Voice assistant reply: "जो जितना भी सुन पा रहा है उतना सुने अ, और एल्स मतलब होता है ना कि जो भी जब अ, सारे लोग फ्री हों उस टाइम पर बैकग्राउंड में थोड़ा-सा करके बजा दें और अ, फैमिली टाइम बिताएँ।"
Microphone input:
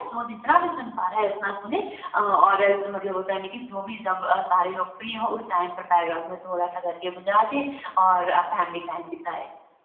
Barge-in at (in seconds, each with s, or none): none